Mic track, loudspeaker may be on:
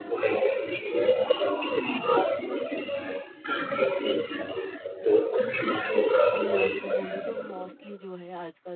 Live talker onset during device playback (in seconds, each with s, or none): 6.3 s